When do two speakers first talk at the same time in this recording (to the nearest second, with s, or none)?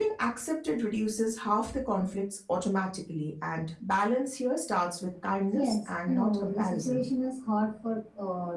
6 s